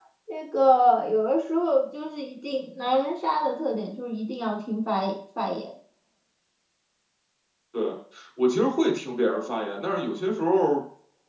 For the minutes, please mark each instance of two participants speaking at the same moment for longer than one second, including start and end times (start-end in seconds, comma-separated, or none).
none